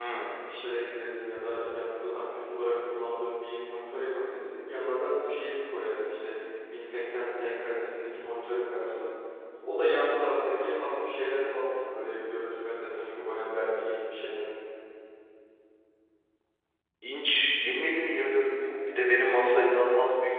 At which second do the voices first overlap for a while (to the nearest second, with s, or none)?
none